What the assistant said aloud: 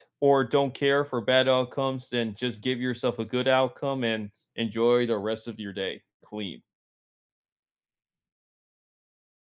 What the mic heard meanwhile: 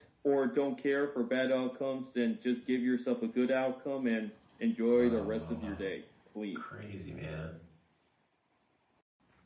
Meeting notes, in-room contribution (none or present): present